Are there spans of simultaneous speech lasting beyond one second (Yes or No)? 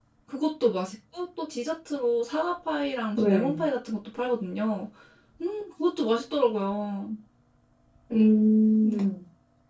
No